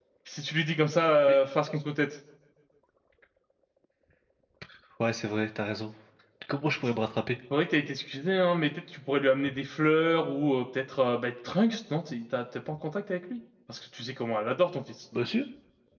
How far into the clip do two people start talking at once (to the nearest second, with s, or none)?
none